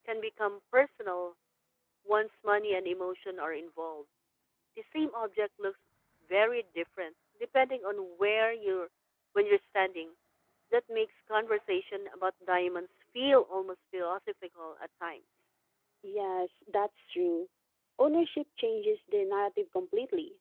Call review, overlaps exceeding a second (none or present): none